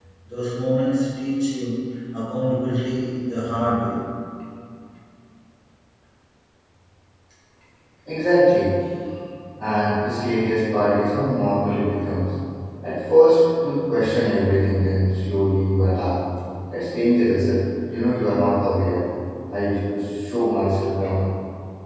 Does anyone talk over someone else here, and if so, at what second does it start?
none

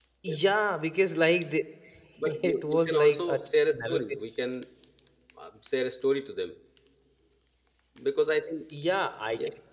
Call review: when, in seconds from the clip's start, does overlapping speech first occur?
2.4 s

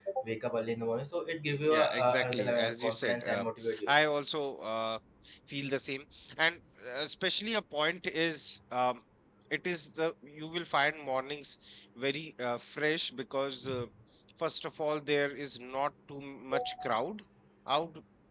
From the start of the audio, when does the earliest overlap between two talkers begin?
1.6 s

